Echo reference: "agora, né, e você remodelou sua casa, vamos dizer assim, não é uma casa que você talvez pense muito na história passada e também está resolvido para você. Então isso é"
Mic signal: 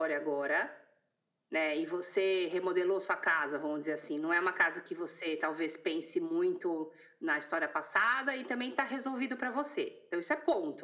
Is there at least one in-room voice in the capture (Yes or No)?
No